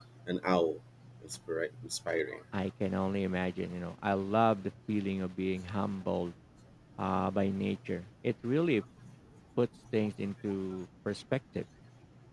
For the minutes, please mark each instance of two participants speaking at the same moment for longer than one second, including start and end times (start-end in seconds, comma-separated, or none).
none